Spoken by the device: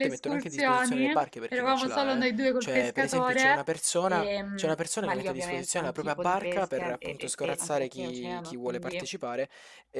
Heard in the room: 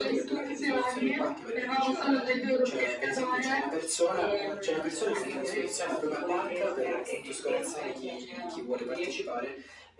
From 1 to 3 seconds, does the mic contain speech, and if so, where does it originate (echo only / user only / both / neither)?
echo only